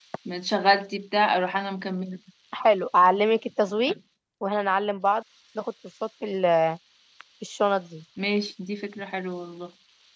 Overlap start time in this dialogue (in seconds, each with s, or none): none